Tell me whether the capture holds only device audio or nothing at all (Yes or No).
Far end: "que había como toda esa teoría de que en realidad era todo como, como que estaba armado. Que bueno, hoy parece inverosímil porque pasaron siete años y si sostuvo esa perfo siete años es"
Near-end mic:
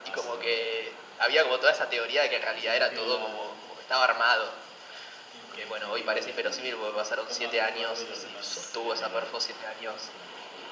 No